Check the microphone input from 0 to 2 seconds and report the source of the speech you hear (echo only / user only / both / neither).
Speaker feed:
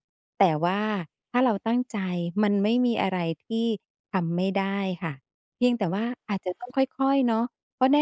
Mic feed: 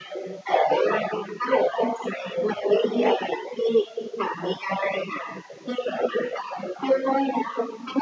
echo only